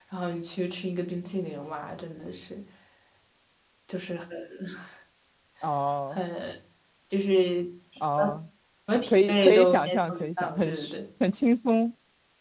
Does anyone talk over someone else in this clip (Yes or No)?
Yes